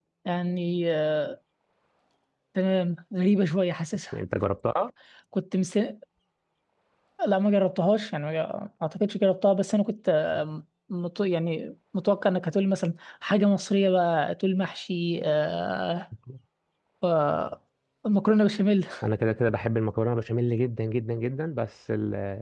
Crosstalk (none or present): none